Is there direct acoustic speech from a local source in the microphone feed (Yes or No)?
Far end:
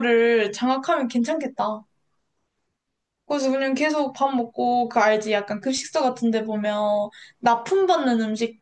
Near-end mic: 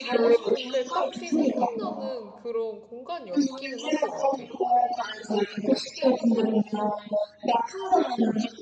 Yes